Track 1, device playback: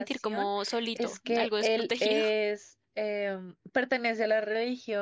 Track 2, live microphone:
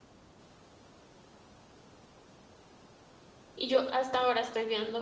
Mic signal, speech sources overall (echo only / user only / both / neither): user only